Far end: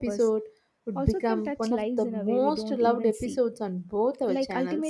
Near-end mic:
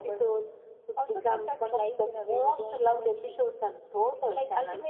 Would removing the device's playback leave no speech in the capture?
Yes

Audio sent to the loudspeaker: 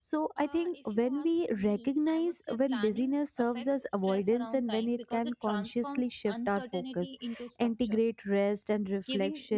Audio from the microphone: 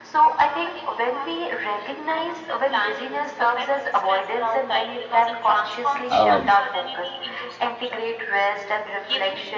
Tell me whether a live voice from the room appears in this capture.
Yes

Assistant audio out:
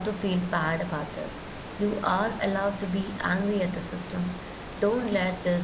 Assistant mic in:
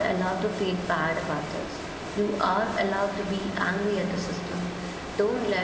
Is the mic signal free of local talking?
Yes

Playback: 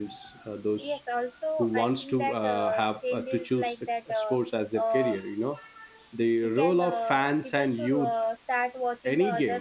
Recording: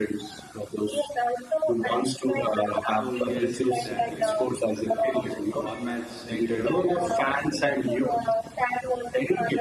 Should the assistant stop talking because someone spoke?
Yes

